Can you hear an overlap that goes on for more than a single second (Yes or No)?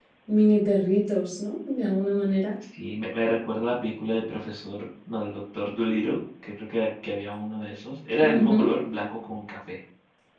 No